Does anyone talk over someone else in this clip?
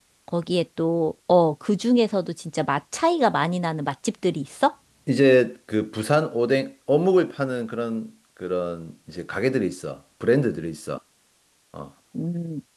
No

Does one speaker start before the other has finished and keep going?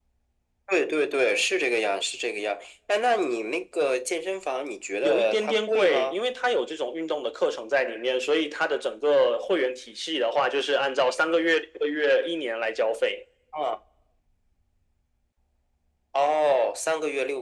Yes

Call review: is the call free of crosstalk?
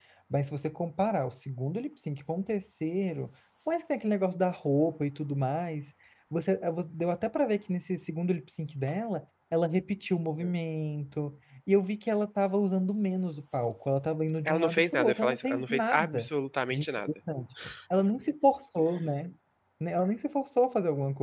No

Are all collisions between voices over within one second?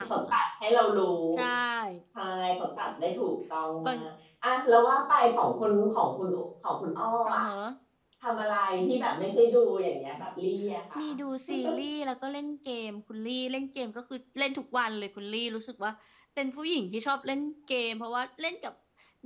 Yes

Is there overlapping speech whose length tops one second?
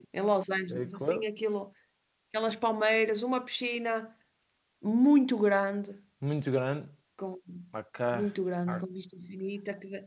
No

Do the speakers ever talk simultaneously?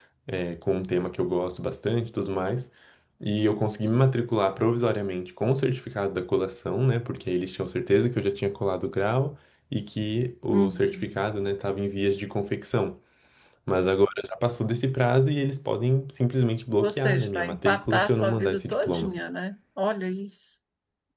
Yes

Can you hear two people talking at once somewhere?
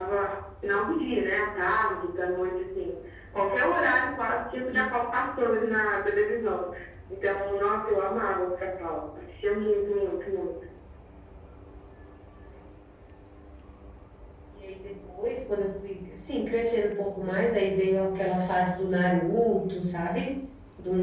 No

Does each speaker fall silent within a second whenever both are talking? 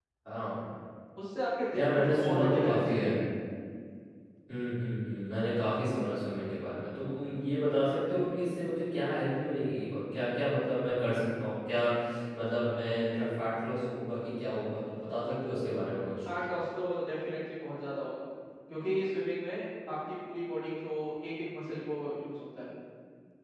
No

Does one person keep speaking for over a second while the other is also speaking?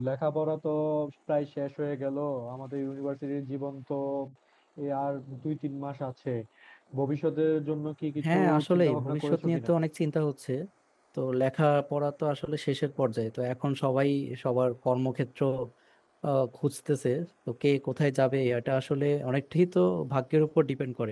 Yes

